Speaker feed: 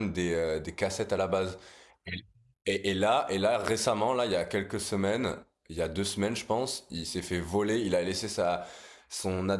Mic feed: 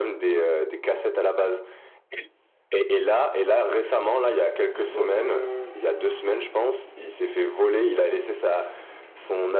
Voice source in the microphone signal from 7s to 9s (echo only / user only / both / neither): echo only